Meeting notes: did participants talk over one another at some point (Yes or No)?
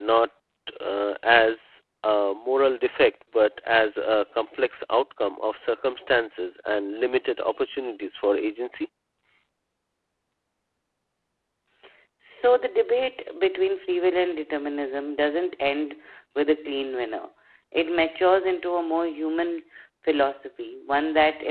No